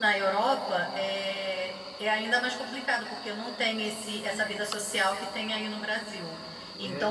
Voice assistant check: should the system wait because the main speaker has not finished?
Yes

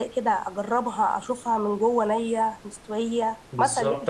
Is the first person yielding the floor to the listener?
Yes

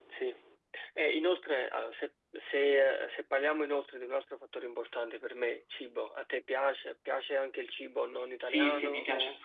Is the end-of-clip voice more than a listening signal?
Yes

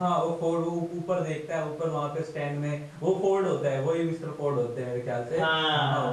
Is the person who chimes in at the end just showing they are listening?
No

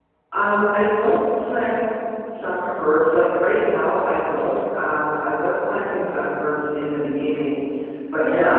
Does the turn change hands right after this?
No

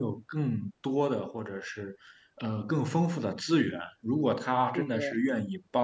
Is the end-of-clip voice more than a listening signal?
No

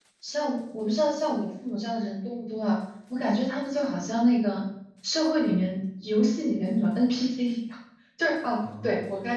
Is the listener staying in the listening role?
Yes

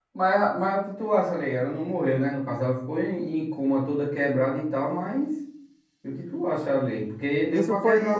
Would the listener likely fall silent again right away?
No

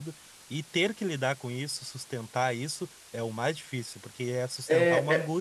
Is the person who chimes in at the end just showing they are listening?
No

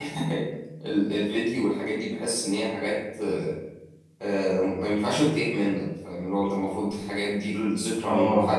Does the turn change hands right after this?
No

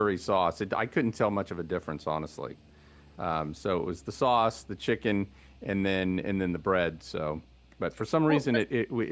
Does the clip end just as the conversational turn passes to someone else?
No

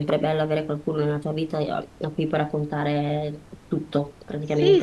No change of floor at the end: No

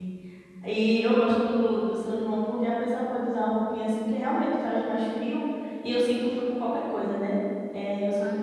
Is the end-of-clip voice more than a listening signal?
Yes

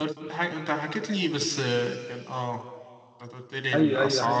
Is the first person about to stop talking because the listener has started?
Yes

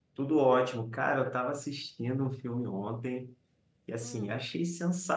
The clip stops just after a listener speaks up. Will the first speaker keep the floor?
Yes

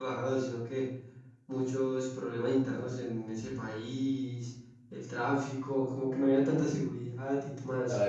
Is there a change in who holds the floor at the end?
Yes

